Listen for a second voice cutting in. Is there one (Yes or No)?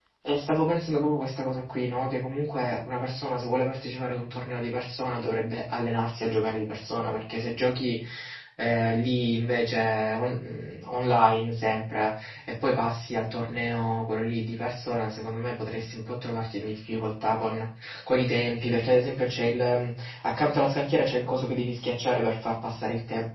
No